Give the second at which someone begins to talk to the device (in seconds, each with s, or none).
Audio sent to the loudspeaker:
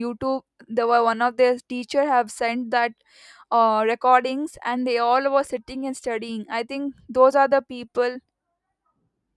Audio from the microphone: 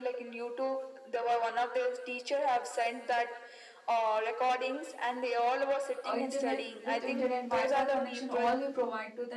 6.0 s